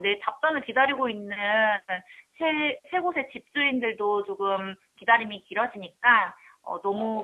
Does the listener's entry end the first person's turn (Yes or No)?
No